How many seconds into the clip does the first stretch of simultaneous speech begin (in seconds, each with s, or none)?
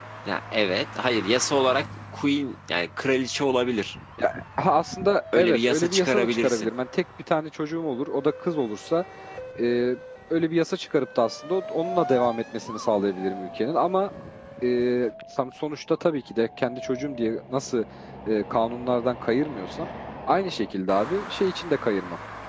5.3 s